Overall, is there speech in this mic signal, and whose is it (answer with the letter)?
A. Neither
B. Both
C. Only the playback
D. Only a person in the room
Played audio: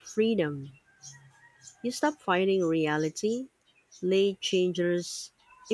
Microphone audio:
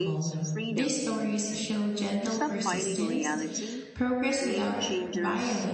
B